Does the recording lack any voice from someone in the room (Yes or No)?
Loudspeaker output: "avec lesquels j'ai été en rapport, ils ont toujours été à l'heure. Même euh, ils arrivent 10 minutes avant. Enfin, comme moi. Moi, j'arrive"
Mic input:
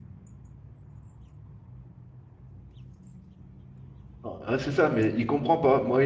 No